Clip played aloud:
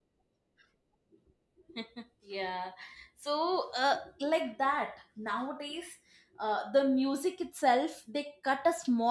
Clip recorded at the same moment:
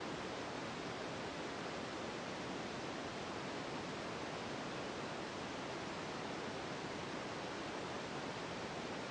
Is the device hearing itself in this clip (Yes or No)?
No